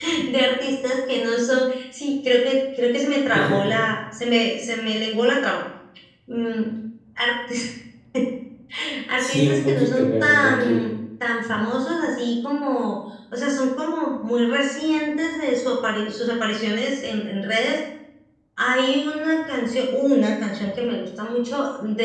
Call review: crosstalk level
present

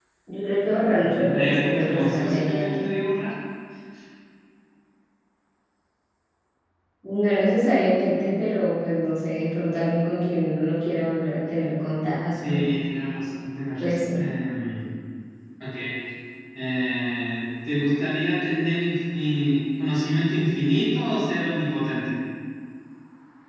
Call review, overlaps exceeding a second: present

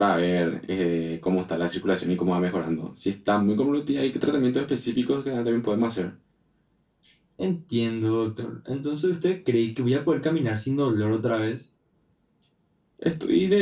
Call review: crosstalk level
none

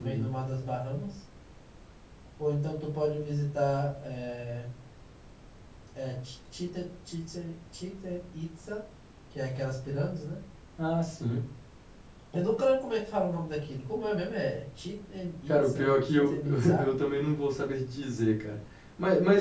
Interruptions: present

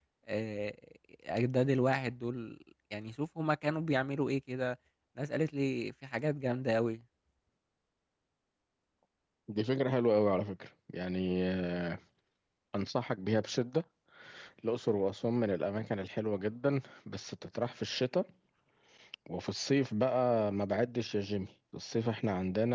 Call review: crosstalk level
none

